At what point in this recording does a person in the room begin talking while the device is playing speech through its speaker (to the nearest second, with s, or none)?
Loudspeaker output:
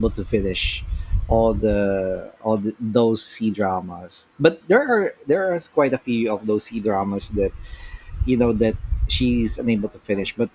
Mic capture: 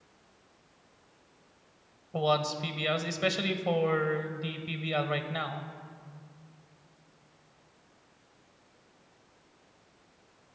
2 s